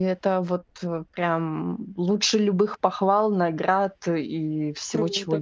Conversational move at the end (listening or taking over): taking over